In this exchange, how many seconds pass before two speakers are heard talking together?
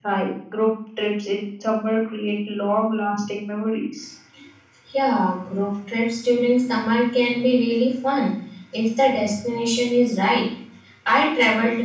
none

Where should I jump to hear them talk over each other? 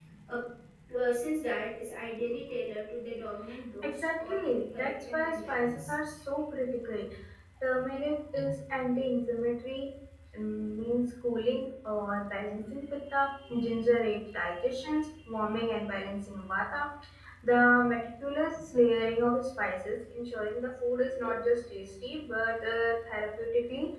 3.8 s

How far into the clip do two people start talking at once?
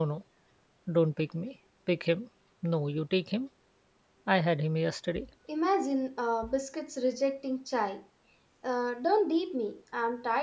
none

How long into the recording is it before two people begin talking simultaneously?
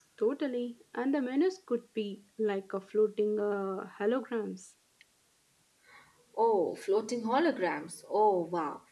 none

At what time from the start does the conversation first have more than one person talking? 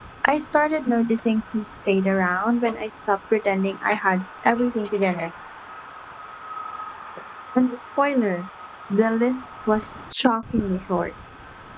none

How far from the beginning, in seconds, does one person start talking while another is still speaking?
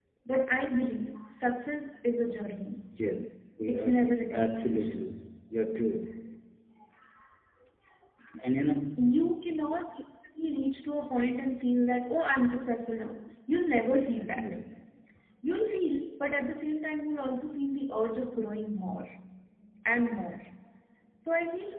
3.7 s

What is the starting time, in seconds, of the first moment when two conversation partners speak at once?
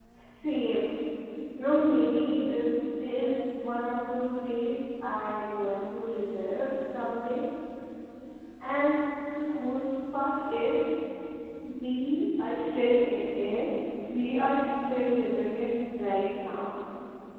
none

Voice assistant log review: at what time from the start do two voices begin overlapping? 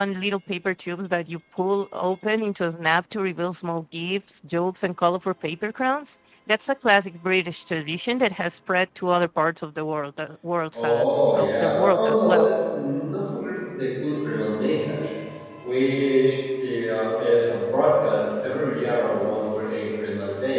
10.7 s

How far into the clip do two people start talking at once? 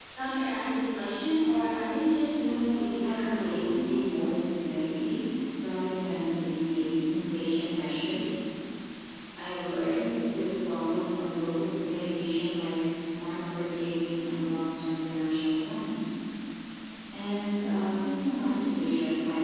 2.4 s

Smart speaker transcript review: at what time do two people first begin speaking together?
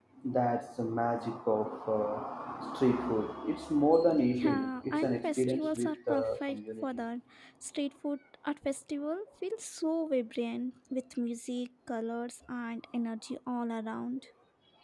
4.4 s

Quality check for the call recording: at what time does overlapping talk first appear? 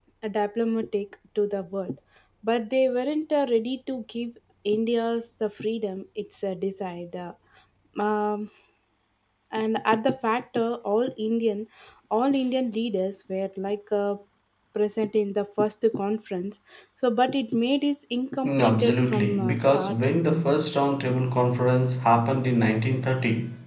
18.4 s

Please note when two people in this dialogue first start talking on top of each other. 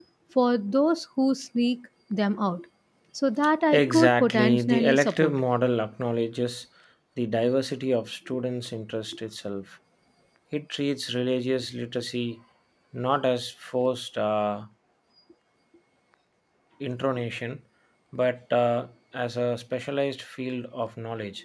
3.7 s

